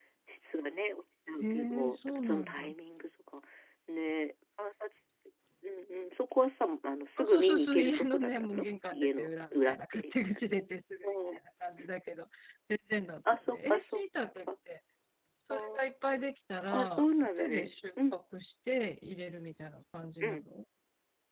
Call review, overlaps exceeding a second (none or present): present